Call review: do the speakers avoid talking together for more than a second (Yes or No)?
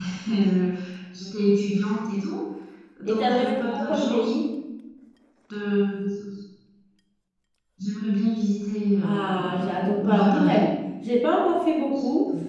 No